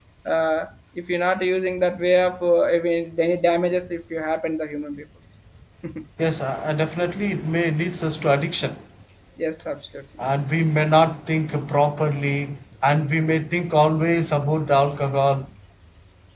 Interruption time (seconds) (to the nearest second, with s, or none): none